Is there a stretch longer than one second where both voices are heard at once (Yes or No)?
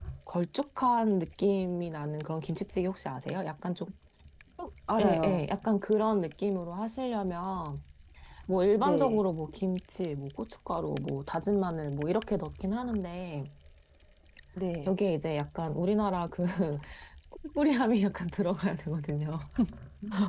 No